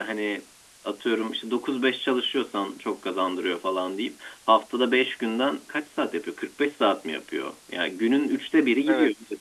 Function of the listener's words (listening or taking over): listening